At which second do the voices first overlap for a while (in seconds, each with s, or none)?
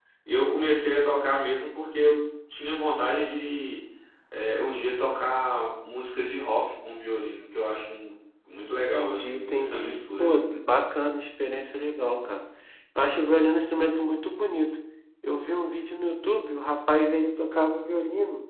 9.0 s